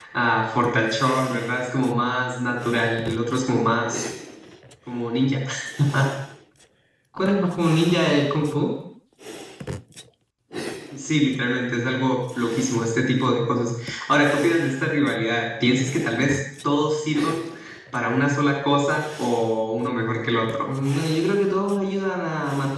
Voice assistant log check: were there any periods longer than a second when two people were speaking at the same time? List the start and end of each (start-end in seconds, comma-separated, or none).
none